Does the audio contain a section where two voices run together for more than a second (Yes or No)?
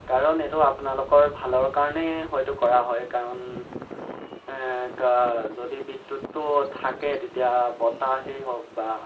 No